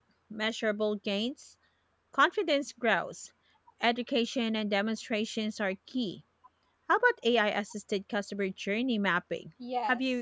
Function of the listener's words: taking over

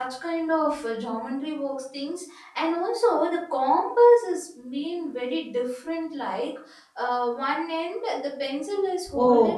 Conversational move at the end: taking over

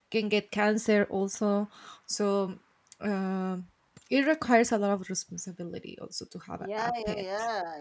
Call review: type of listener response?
taking over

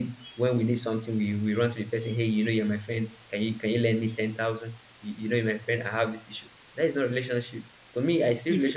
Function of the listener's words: listening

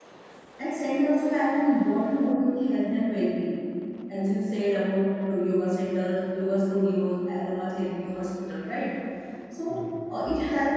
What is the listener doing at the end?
listening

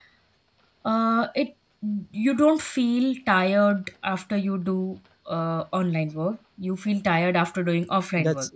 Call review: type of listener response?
taking over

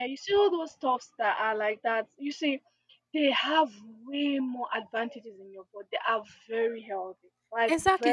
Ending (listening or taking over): taking over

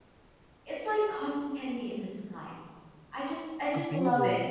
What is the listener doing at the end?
listening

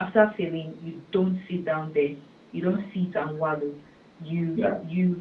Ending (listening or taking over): listening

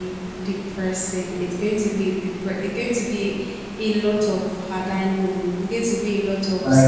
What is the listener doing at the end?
taking over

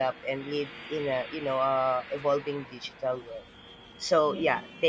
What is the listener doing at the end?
listening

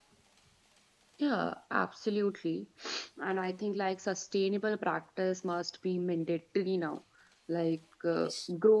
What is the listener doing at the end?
listening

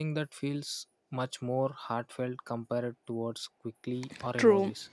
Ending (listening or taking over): taking over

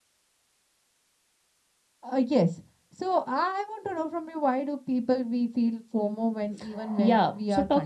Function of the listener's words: taking over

